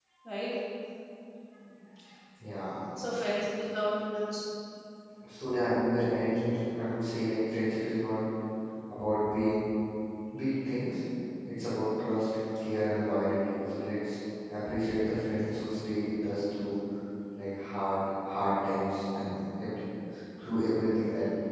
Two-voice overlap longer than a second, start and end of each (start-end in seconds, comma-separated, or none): none